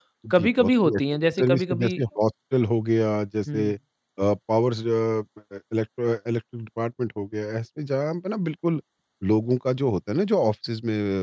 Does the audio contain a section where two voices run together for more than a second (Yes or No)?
Yes